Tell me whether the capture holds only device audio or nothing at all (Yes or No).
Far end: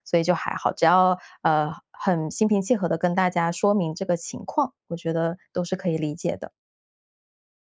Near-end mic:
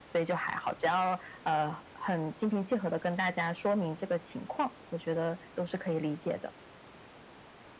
Yes